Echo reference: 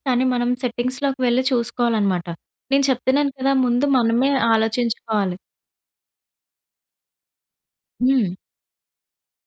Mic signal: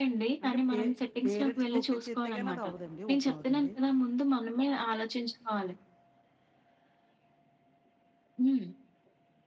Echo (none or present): present